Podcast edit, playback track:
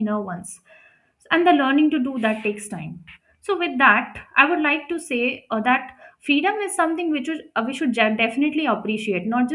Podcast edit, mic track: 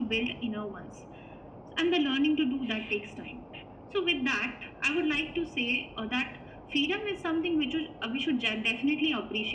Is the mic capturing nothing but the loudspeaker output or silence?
Yes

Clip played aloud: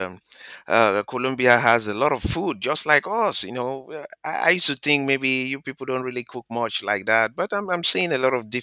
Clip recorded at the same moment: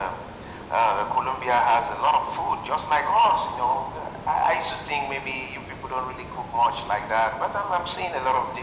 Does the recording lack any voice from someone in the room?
Yes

